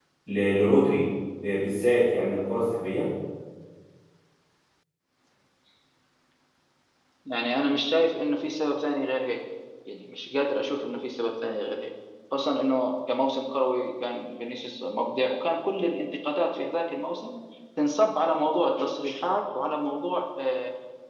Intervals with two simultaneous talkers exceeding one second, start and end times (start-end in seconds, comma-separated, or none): none